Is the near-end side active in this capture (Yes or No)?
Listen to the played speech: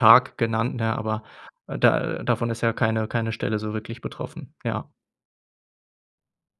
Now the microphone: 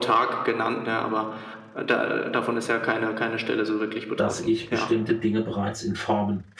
Yes